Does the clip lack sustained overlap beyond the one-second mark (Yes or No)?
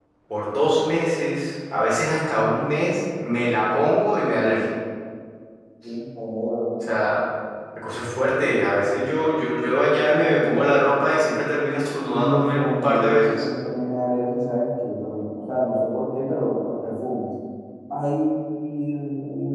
No